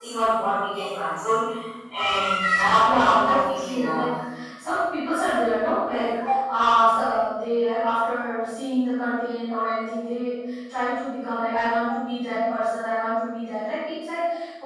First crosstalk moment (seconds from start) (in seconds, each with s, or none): 2.8 s